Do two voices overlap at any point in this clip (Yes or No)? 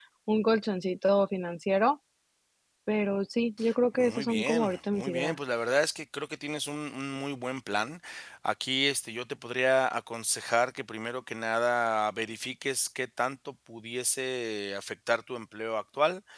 Yes